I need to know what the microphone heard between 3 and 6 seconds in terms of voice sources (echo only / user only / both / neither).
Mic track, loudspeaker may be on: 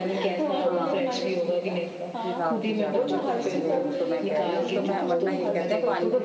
both